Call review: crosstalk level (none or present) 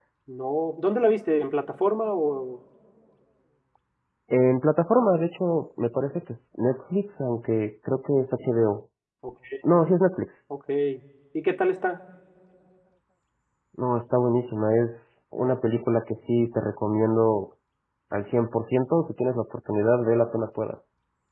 none